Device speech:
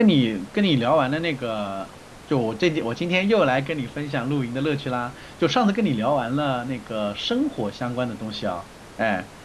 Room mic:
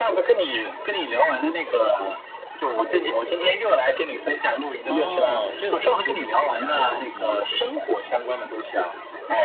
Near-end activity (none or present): present